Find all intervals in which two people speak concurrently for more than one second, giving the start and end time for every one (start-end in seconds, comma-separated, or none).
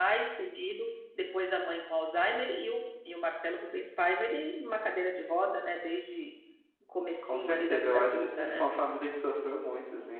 7.2-8.6